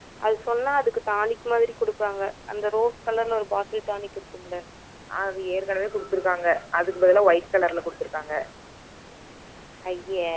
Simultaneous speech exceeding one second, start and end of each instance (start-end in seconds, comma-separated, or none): none